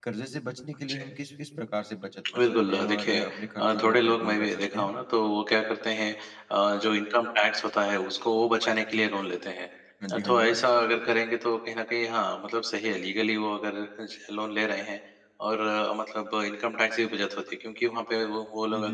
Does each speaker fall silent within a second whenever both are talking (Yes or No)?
No